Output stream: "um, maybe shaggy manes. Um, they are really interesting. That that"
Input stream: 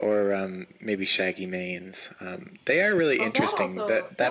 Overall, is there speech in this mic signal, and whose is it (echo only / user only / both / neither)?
both